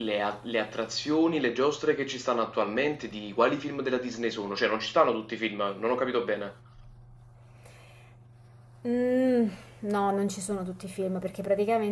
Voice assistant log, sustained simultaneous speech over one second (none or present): none